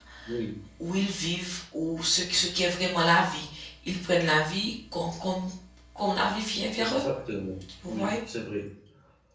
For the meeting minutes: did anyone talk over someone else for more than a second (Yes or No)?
No